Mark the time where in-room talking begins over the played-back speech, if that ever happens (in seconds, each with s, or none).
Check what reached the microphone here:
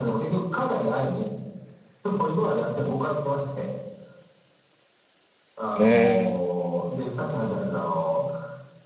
5.8 s